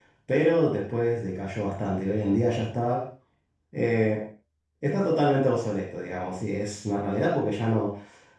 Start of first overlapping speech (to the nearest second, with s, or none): none